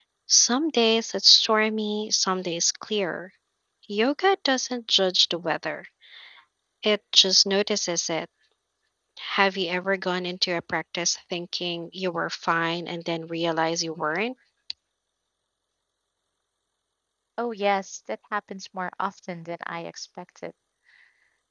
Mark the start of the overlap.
none

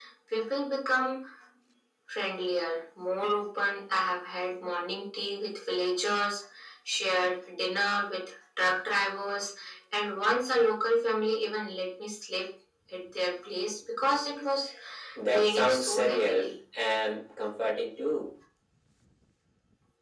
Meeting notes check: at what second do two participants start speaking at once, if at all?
15.3 s

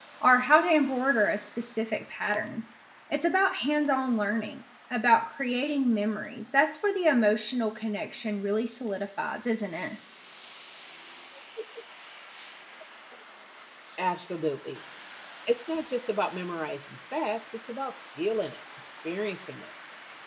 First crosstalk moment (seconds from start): none

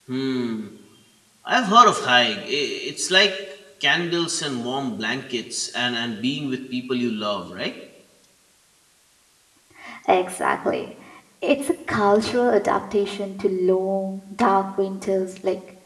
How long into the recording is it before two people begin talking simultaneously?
none

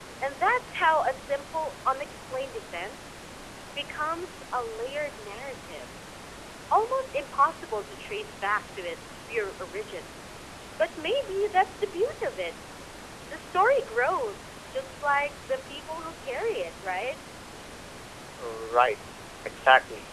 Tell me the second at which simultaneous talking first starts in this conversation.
none

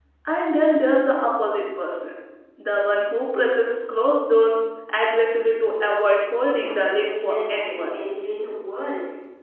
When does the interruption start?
6.6 s

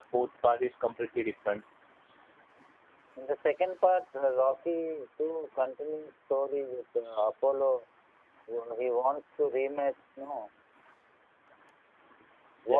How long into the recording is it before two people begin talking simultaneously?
none

